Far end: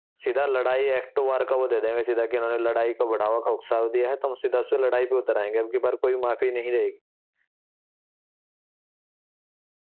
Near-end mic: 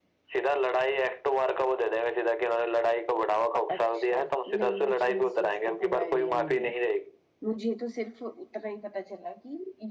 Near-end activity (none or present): present